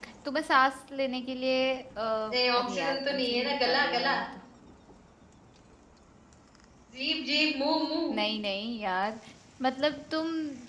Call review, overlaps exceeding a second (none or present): present